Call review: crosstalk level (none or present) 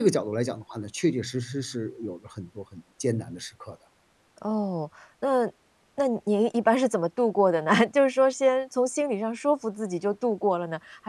none